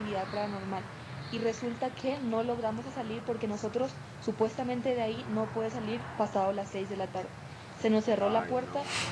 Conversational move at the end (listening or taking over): listening